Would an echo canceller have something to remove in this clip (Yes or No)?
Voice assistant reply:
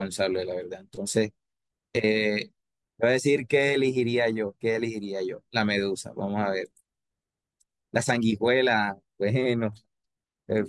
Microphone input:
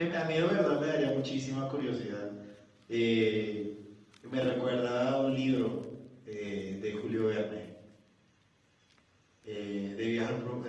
No